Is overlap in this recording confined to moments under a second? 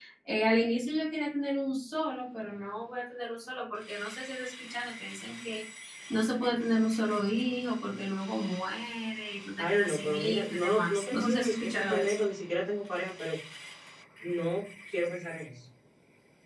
No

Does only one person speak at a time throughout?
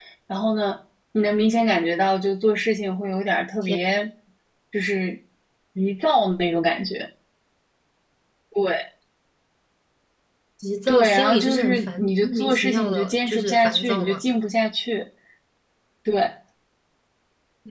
No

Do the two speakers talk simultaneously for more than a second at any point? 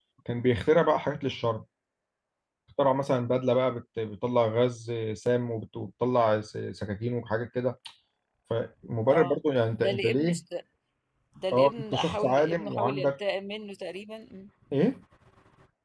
Yes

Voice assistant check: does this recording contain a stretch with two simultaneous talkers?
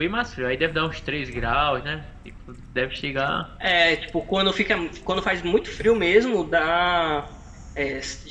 No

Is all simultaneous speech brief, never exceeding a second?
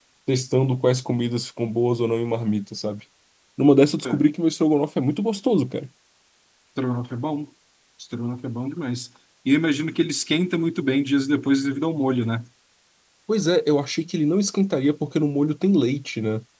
Yes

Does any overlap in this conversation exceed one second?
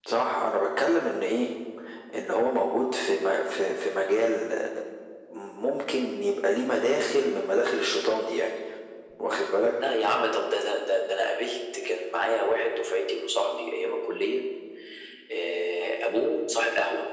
No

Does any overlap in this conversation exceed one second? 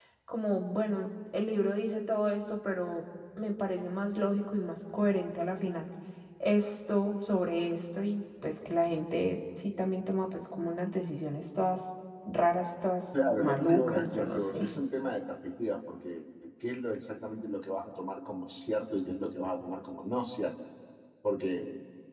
Yes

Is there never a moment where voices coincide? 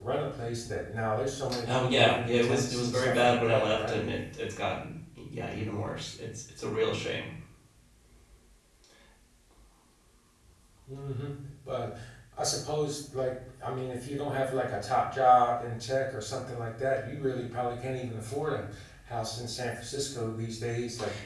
No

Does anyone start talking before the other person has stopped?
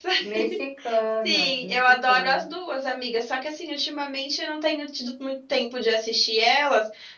Yes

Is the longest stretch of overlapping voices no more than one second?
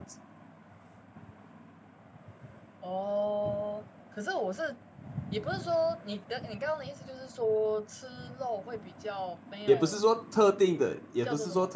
Yes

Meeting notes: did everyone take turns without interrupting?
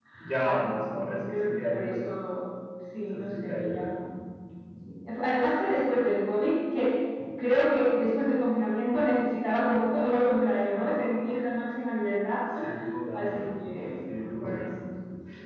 No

